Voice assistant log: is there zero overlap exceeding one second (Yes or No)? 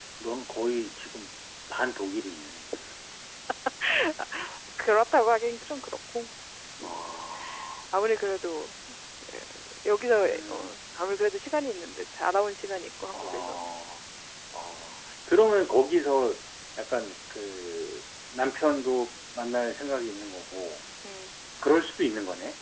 Yes